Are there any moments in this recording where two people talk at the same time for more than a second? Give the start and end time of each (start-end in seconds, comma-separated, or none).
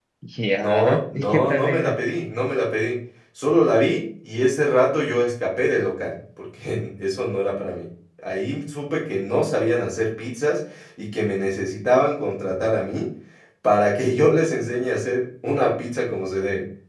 0.5-2.0